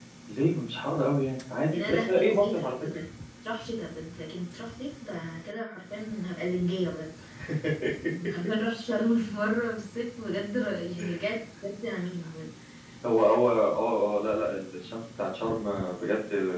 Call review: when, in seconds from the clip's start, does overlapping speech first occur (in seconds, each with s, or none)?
1.7 s